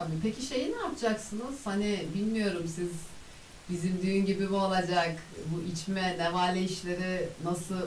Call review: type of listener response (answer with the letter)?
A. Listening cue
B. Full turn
B